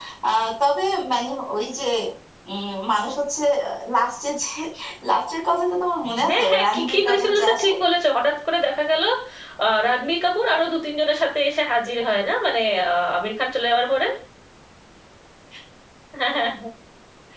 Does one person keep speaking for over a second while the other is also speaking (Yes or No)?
Yes